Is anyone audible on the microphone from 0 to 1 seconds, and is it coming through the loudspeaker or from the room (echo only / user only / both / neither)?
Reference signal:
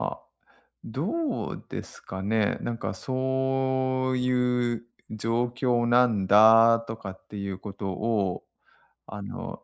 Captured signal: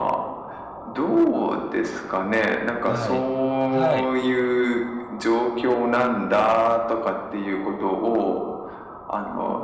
echo only